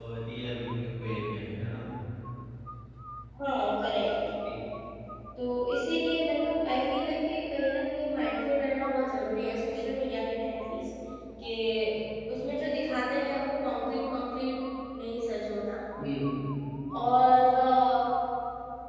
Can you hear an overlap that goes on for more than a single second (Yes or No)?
No